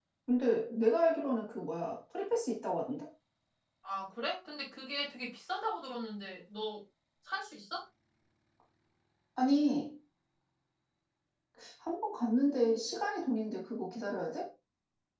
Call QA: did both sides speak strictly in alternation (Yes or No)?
Yes